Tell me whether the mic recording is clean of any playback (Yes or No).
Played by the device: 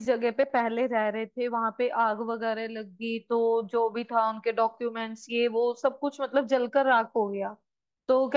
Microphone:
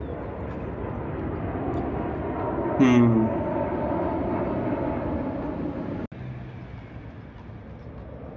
Yes